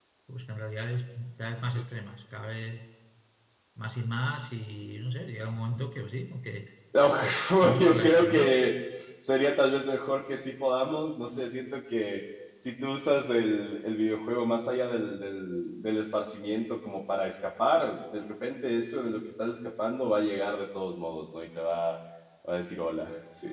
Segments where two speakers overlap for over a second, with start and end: 7.0-8.6

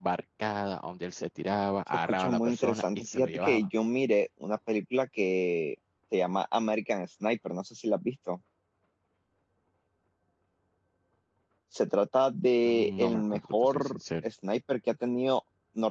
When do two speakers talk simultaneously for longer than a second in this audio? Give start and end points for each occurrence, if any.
2.1-3.7, 12.6-14.3

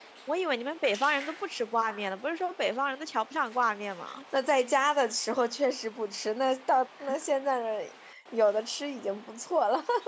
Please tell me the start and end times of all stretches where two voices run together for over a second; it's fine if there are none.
none

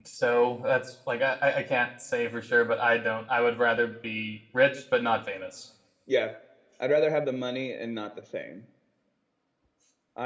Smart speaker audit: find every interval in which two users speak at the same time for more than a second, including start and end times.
none

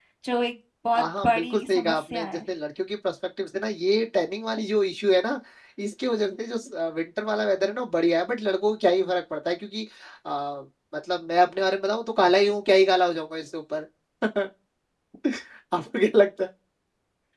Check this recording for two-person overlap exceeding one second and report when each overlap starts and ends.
1.0-2.4

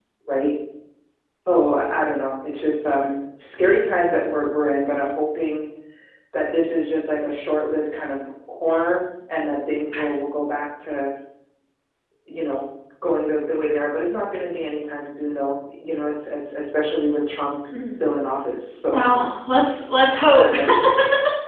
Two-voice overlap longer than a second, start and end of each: none

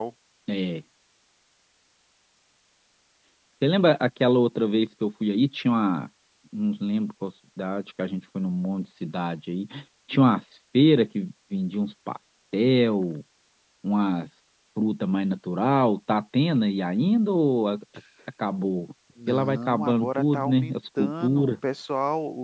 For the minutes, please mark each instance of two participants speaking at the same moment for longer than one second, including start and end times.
19.3-21.5

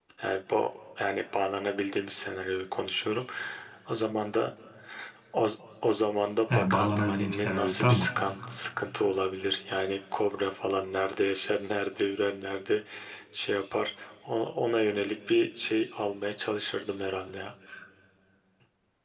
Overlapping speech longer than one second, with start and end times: 6.5-8.1

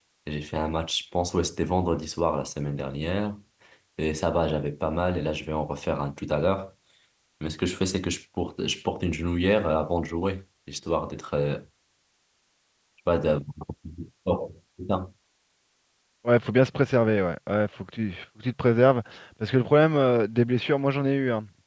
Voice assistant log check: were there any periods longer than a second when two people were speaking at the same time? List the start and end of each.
none

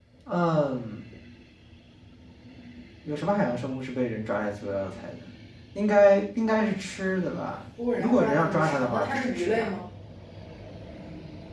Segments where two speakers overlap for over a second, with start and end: 8.0-9.7

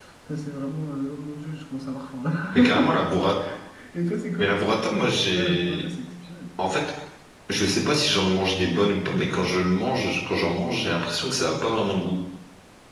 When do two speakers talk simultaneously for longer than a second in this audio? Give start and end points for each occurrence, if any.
none

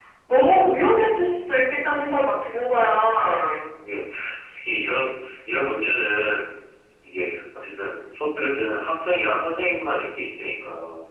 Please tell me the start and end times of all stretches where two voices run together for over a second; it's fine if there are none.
none

